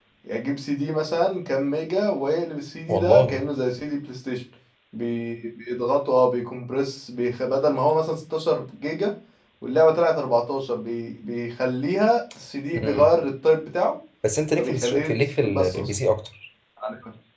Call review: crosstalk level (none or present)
present